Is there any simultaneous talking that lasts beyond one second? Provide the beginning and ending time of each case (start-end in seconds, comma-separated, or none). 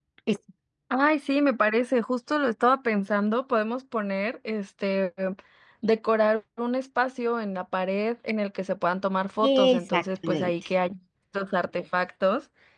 9.4-10.7